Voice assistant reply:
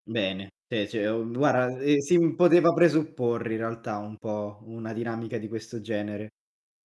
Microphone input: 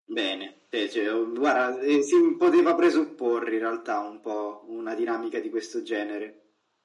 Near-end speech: none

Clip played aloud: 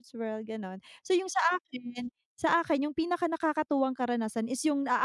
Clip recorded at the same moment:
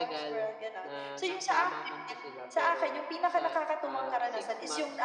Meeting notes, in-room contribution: present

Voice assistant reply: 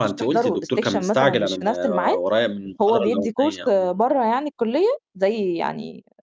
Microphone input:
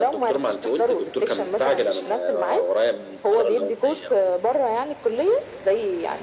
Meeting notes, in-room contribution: none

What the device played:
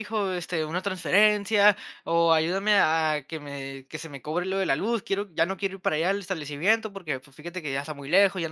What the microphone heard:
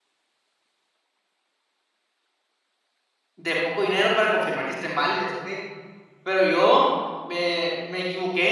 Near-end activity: present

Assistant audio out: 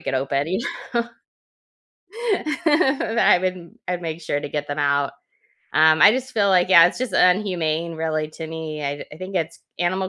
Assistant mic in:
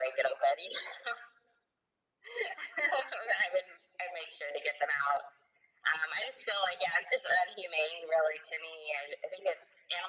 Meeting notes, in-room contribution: none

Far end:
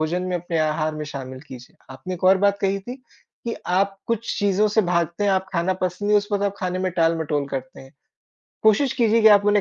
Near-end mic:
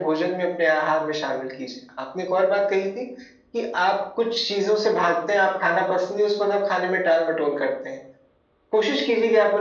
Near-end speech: none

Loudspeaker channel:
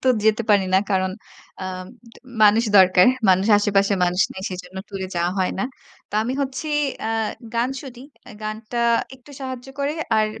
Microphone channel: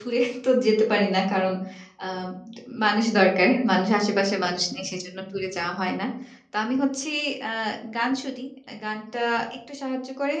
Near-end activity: none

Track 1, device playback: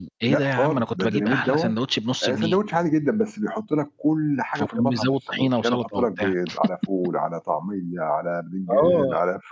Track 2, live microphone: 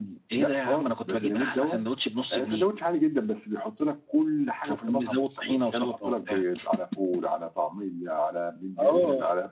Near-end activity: none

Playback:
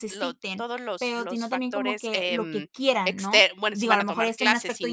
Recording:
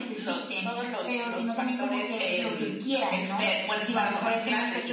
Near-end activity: none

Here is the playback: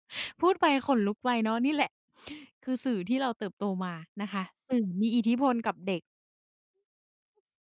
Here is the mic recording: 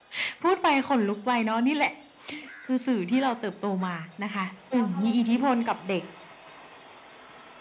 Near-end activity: present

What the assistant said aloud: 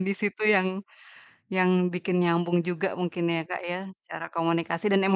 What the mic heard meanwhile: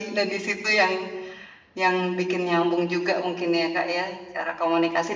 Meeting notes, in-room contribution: none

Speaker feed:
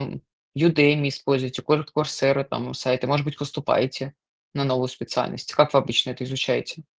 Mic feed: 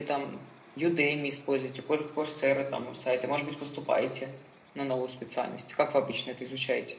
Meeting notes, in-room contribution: none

